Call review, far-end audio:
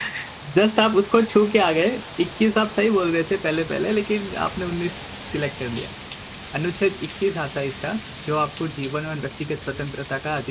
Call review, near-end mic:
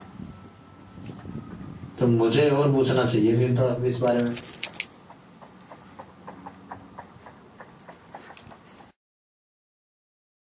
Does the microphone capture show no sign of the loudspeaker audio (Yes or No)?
Yes